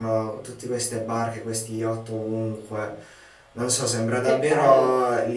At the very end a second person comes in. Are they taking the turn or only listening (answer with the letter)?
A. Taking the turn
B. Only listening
B